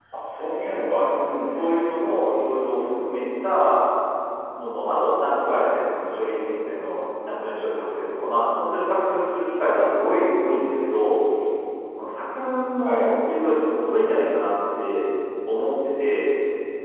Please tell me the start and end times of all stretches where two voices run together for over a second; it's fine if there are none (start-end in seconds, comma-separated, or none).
none